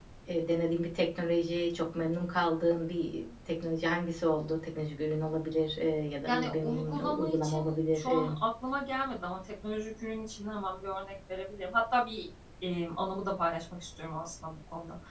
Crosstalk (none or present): present